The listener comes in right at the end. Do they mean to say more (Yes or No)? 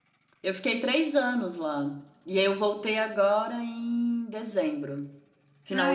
Yes